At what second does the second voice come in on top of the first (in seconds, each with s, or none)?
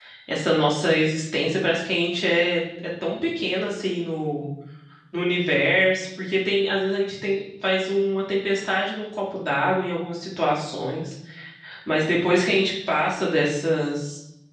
none